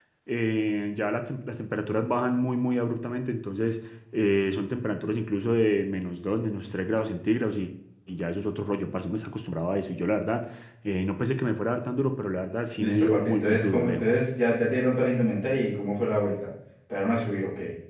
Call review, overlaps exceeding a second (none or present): present